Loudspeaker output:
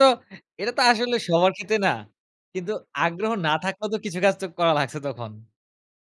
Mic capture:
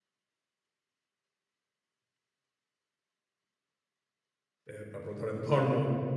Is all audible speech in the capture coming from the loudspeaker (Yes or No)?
No